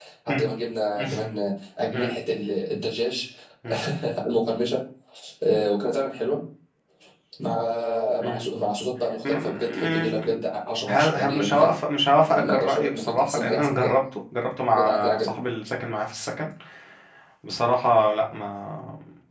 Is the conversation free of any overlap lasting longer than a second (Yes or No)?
No